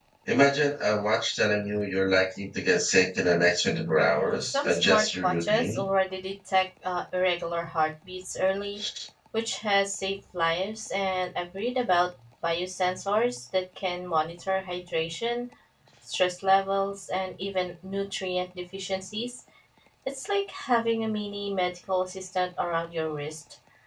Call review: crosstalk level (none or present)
present